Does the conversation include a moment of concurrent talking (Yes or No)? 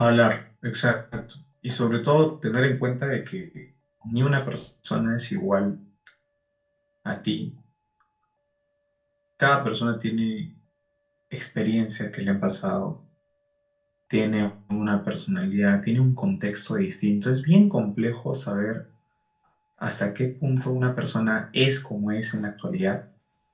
No